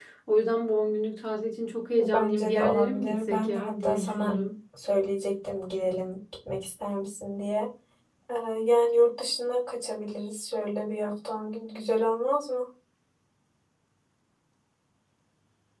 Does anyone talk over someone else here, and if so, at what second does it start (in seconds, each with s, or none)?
2.0 s